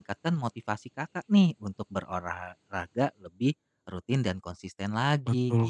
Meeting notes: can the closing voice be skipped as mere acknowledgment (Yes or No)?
No